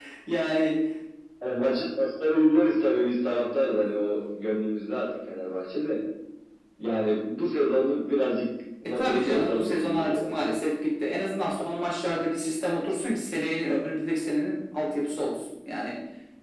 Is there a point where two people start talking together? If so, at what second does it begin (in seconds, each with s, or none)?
8.8 s